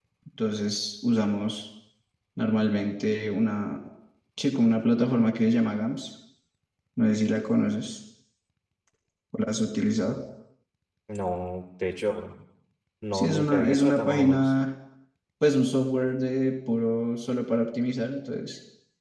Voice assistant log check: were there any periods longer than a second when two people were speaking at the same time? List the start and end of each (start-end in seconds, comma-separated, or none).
13.1-14.5